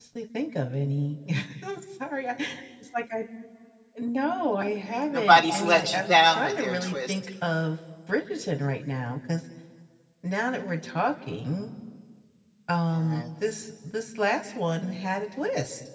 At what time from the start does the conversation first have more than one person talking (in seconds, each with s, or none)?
5.1 s